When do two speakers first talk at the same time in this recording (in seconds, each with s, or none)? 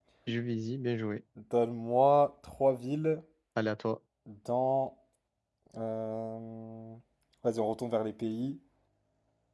none